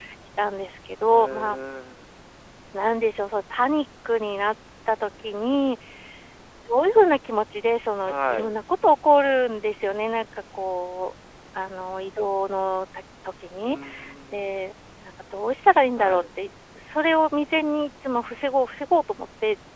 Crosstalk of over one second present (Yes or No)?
No